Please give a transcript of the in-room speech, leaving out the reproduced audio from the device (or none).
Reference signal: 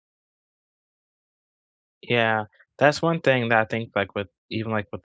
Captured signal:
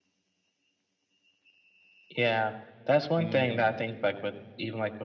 Mhm.